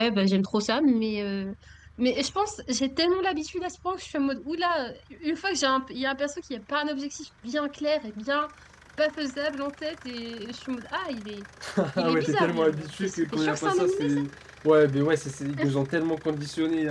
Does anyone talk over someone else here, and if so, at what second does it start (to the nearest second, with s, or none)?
12 s